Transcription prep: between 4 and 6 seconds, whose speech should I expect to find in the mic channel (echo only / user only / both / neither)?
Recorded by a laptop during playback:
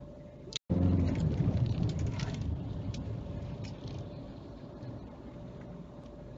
neither